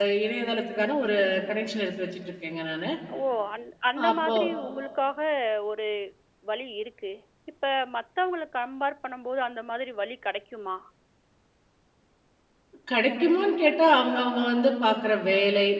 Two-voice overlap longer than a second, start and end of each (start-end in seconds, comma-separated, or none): none